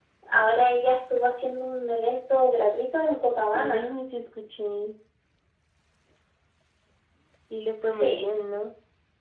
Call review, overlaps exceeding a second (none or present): none